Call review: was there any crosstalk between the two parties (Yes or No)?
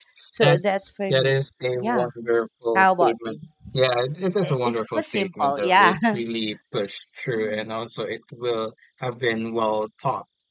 Yes